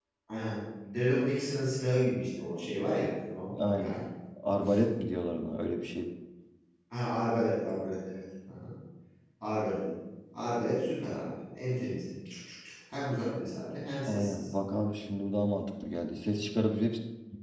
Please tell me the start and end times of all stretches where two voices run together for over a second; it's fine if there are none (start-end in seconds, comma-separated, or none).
none